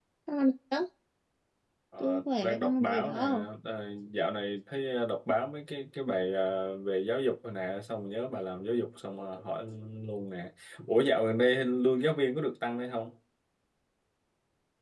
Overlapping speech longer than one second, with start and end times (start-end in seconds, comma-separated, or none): 2.0-3.2